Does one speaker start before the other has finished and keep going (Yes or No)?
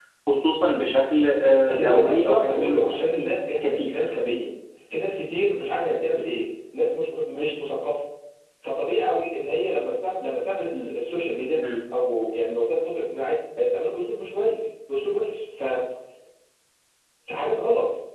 Yes